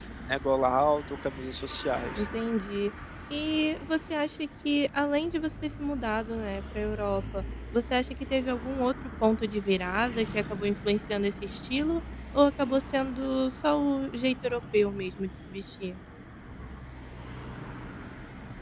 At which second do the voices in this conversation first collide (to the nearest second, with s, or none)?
none